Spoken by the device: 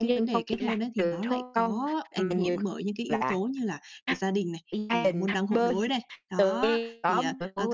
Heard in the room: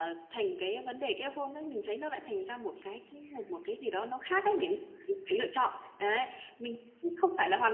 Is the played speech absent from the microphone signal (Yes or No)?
Yes